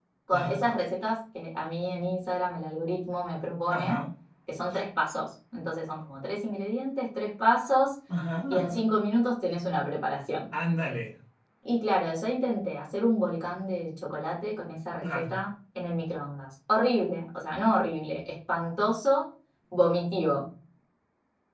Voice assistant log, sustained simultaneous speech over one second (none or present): none